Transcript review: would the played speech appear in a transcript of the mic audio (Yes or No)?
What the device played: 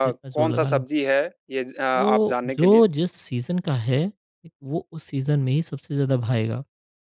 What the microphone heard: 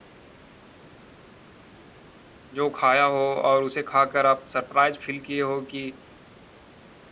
No